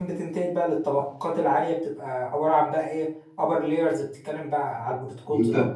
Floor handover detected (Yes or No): Yes